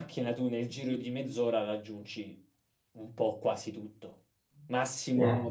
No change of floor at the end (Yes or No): Yes